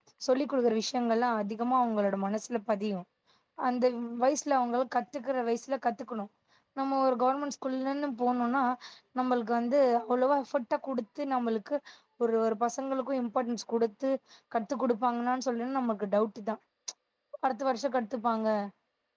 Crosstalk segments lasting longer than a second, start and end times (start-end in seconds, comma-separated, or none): none